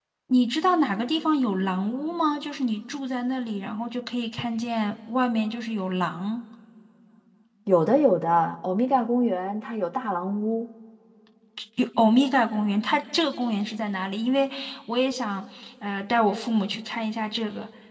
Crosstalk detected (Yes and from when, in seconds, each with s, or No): No